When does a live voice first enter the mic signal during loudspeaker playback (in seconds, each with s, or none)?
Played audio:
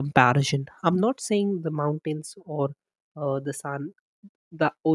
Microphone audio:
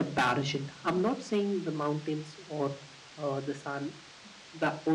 none